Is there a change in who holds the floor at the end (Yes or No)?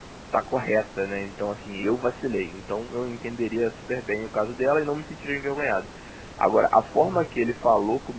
No